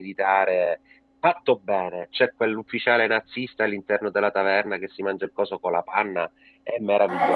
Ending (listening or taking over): taking over